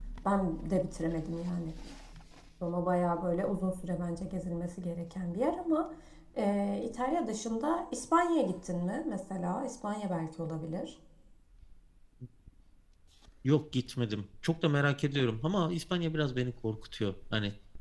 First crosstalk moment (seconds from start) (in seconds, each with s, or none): none